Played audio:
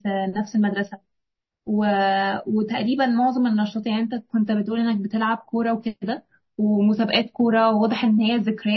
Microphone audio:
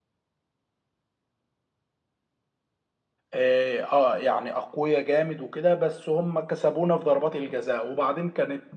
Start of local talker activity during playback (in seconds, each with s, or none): 3.3 s